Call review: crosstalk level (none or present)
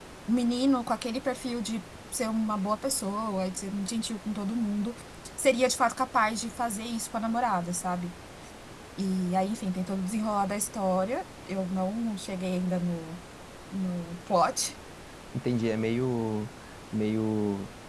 none